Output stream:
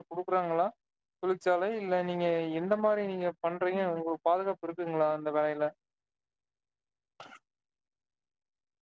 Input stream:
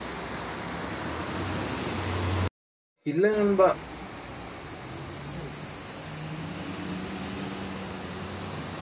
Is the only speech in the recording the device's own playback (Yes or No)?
No